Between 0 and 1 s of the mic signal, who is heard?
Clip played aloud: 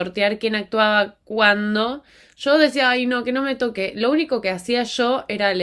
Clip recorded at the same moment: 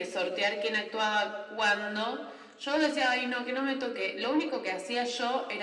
echo only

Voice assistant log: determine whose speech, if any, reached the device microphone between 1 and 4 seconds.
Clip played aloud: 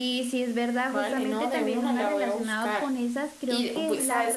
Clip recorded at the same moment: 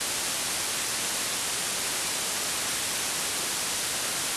neither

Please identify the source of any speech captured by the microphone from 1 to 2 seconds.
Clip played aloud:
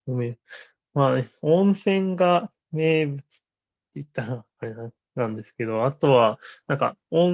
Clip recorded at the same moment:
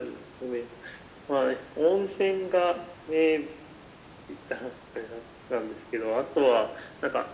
echo only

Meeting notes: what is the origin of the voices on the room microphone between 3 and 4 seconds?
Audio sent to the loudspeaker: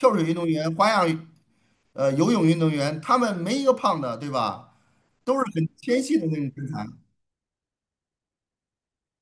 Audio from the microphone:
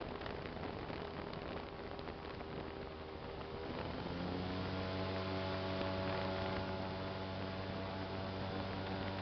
neither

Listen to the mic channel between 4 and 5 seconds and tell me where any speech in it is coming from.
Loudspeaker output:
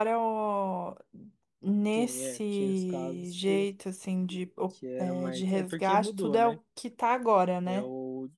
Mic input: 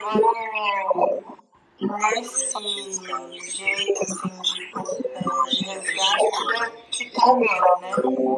echo only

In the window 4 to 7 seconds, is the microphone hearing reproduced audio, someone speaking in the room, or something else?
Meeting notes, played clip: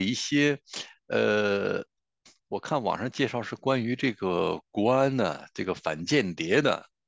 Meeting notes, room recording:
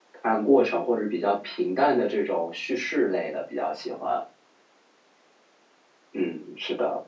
user only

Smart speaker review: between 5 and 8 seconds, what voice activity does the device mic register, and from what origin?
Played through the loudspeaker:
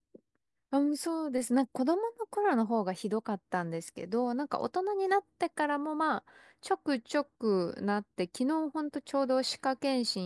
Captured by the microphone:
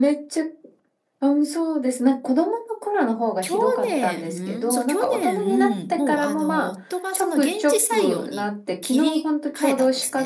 both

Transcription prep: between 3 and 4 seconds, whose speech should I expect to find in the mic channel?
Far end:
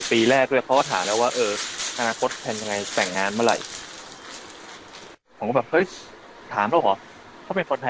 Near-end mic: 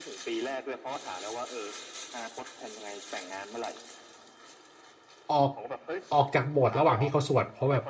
echo only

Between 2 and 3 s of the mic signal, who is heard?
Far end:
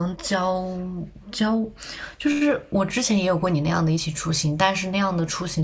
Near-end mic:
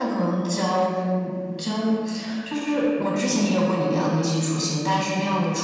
echo only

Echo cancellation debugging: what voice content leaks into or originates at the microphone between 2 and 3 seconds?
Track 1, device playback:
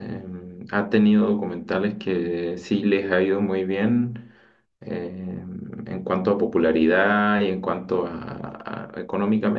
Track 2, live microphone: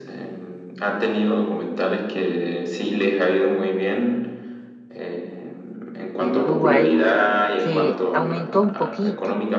echo only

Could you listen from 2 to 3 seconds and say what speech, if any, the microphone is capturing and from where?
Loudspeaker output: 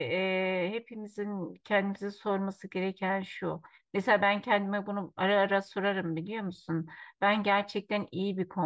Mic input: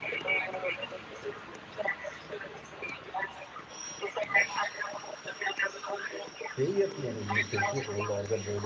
echo only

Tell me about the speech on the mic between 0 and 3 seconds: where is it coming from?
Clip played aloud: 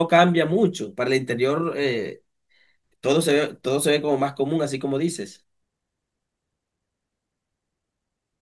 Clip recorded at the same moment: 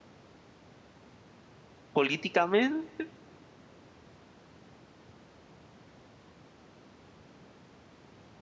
user only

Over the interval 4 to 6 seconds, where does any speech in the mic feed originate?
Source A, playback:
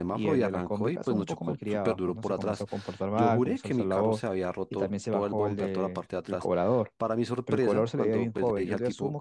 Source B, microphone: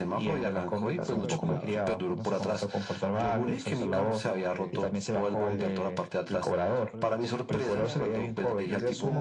both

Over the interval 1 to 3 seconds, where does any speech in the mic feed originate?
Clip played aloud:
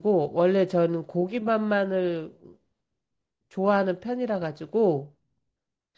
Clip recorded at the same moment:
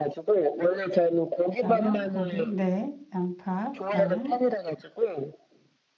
both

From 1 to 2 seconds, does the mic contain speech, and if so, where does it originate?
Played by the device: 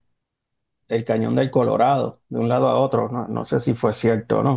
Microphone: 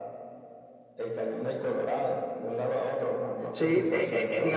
echo only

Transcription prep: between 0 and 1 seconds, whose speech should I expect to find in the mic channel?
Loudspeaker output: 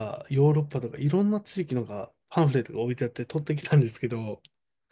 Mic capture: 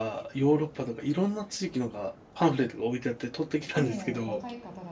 echo only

